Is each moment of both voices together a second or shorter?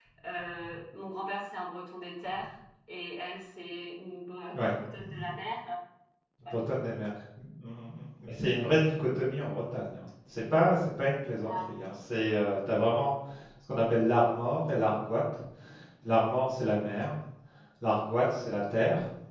Yes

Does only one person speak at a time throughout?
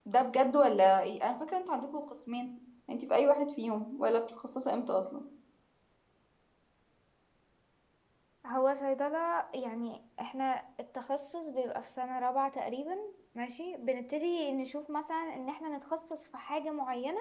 Yes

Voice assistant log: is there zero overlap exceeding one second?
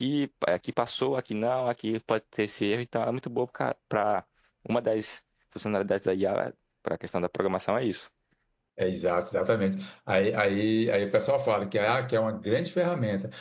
Yes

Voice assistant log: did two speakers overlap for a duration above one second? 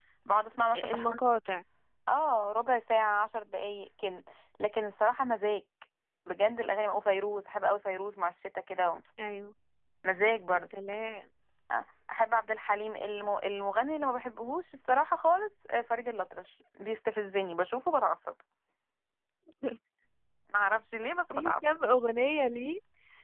No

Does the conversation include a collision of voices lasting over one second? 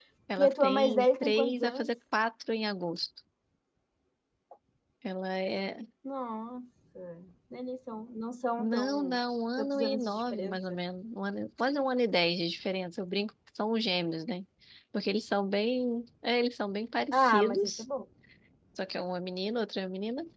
Yes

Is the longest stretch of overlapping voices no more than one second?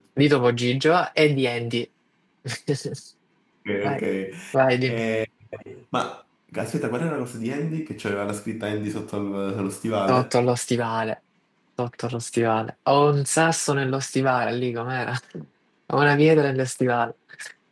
Yes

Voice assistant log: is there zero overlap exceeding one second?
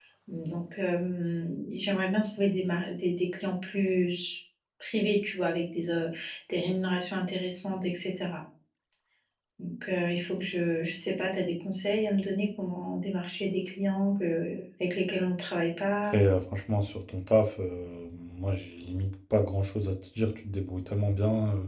Yes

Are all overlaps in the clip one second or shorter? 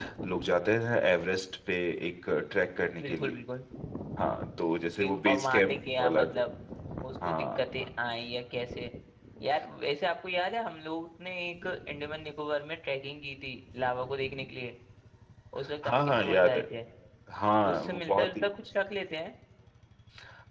No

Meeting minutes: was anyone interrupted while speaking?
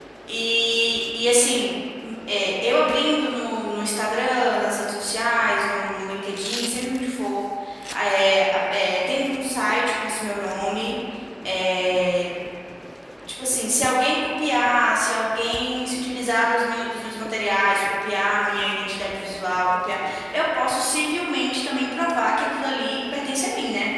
No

